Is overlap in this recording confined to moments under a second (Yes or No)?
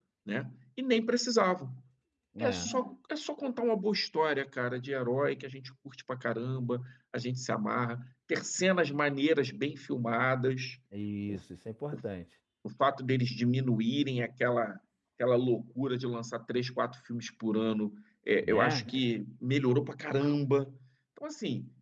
Yes